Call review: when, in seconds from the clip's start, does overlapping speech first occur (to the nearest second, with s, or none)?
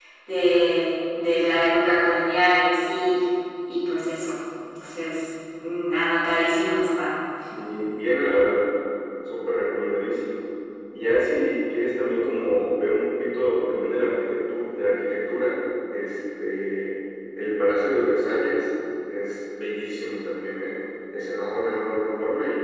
none